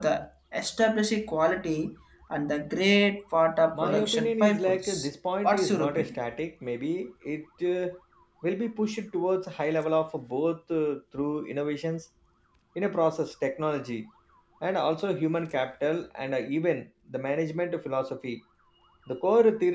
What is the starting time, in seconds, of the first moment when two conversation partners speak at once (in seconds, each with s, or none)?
3.7 s